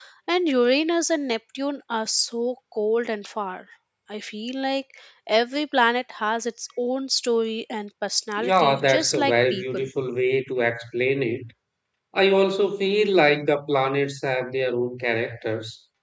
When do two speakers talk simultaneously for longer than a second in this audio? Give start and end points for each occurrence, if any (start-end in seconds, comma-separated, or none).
8.4-9.9